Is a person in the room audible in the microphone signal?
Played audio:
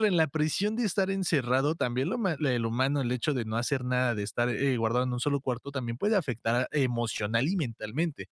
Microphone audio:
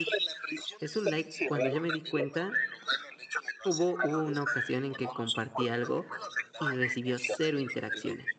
Yes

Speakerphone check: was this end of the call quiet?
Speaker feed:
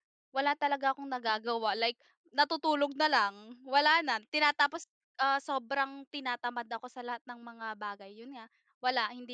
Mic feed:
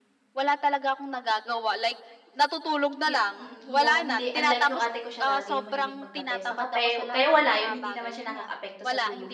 No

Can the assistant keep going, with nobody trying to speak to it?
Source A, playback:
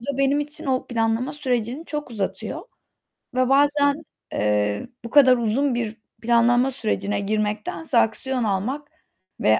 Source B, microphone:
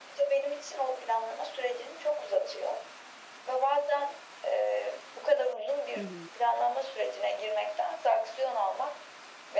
No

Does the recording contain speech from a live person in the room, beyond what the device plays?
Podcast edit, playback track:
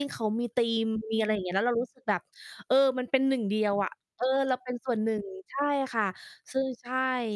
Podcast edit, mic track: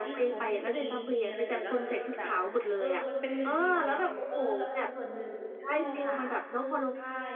Yes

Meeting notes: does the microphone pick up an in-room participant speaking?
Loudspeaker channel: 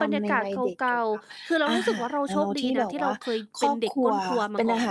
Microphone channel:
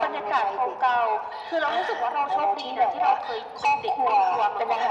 No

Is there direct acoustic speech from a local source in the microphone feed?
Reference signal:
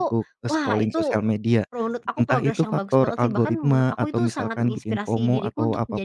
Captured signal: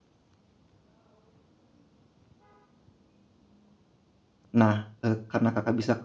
Yes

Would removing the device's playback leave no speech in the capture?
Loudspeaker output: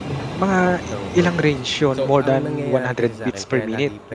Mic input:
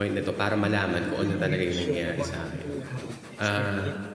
No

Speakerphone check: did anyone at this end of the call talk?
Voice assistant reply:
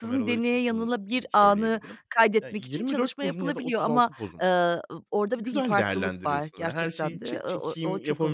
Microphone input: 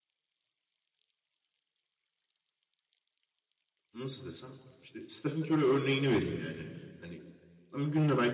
Yes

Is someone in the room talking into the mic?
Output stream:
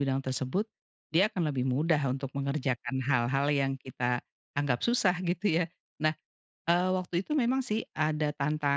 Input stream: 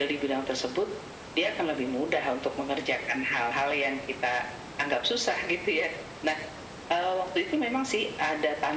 No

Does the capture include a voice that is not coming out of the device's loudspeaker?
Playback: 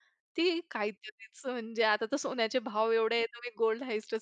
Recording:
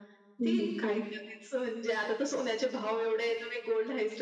Yes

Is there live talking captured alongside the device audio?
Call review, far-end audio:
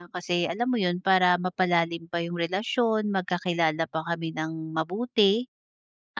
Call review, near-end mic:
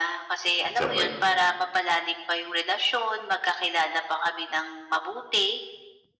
Yes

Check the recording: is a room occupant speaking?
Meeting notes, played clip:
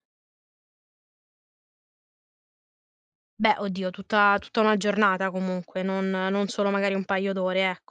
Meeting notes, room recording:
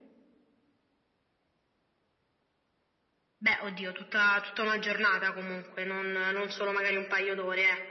No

